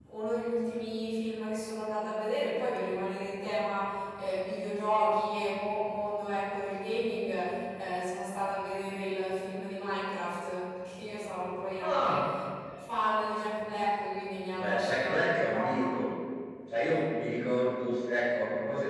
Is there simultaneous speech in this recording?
Yes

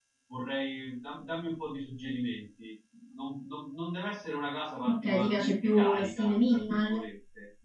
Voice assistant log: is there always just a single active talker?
No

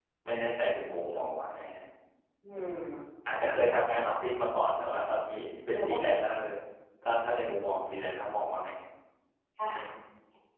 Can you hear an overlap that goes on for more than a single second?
No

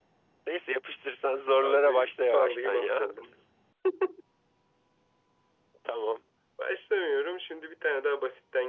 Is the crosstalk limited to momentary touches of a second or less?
No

